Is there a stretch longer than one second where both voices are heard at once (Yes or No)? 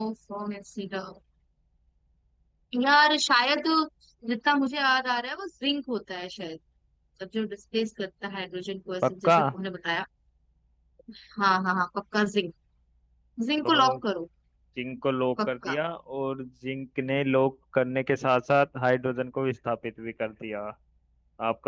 No